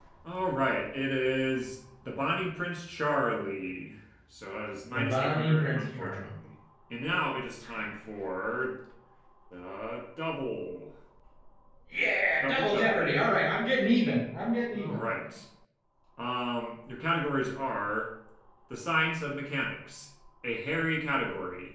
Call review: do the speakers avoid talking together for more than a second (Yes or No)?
No